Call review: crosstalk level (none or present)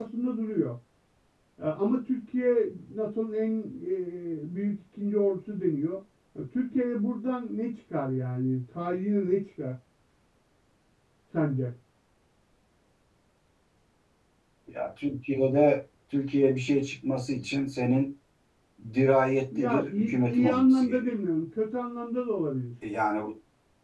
present